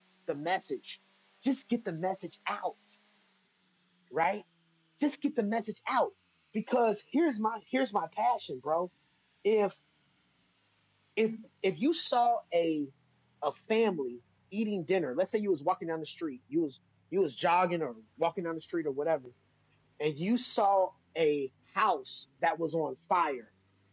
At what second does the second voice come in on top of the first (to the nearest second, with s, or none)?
none